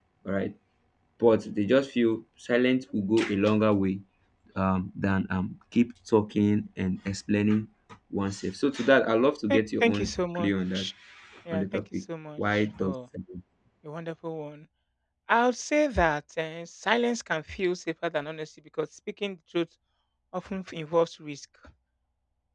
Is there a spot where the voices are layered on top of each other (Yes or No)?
Yes